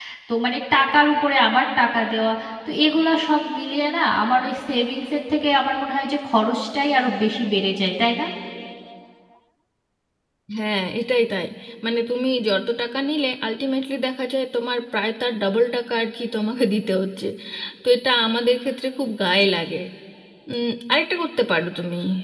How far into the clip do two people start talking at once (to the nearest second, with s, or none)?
none